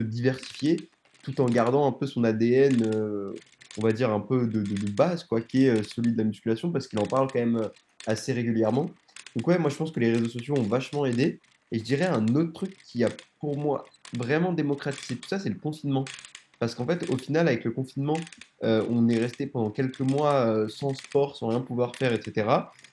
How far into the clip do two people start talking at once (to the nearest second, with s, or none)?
none